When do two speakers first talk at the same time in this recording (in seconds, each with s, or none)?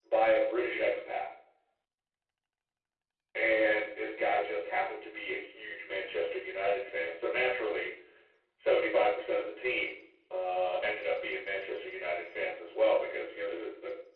none